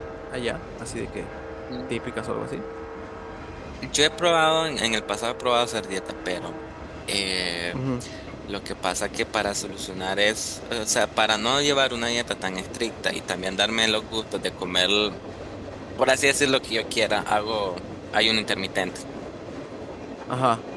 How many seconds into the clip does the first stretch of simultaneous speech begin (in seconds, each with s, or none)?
none